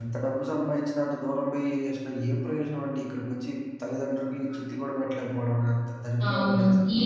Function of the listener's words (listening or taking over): taking over